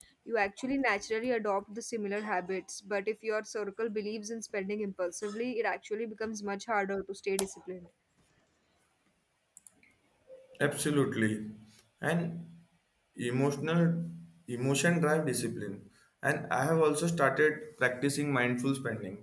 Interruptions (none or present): none